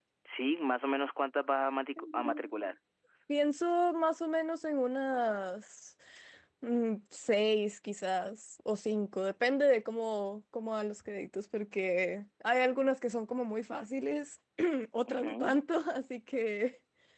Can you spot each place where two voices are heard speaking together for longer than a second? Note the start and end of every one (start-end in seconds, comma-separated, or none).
none